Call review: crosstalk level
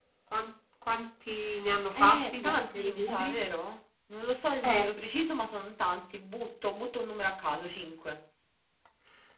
present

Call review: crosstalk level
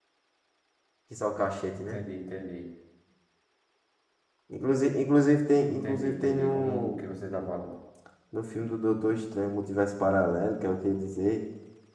present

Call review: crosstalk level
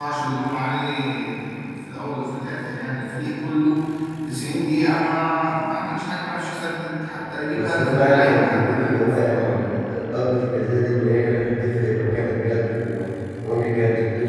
present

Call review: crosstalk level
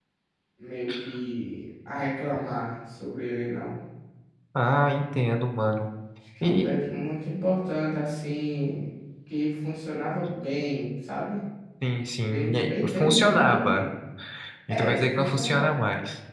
present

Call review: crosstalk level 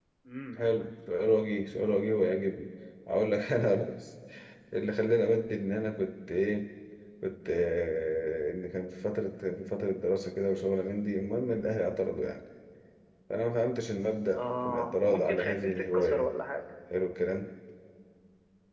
present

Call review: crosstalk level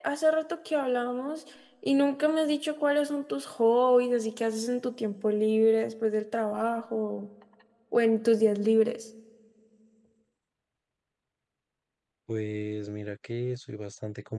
none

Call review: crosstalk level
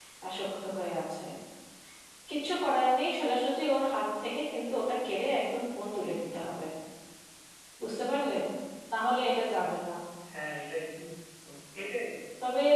none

